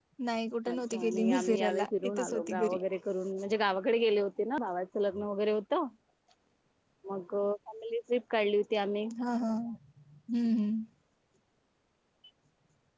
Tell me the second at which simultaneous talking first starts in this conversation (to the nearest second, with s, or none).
1 s